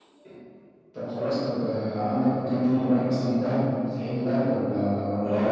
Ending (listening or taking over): taking over